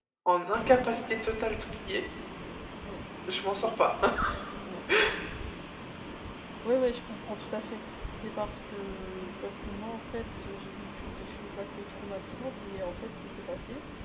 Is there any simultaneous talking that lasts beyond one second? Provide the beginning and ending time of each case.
none

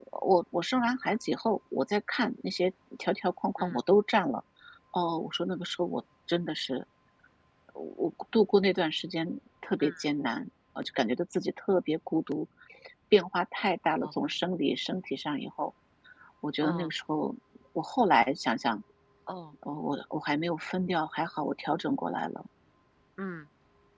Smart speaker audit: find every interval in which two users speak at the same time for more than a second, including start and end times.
none

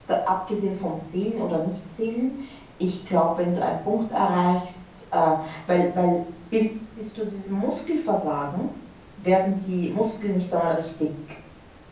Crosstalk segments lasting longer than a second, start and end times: none

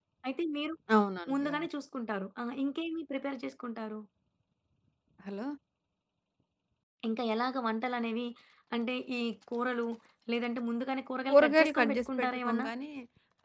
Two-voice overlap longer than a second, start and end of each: 11.3-12.7

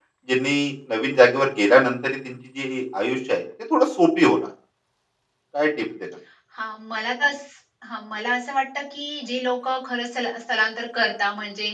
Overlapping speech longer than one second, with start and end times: none

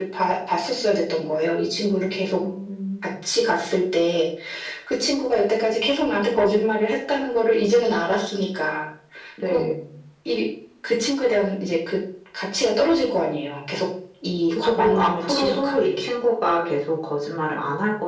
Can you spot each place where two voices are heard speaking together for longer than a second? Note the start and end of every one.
14.5-16.1

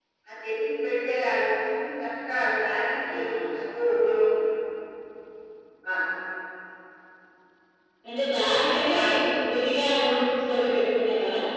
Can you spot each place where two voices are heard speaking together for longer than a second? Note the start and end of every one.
none

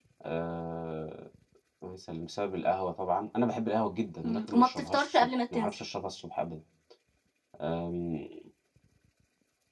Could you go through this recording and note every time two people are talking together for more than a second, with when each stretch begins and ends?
4.2-5.7

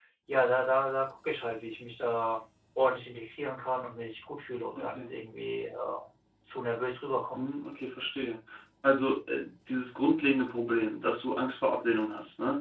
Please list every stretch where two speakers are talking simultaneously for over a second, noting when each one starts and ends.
none

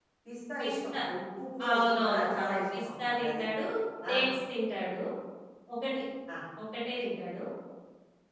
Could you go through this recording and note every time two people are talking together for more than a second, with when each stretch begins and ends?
1.7-3.4

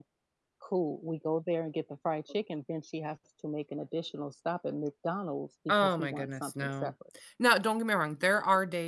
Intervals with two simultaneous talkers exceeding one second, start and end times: 5.7-6.9

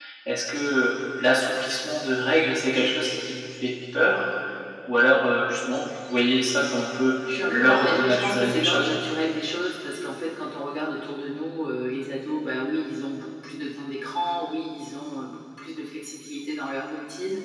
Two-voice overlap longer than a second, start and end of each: 7.5-8.9

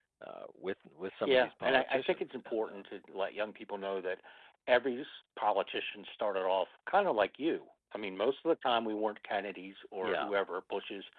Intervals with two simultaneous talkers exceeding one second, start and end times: 1.2-2.8

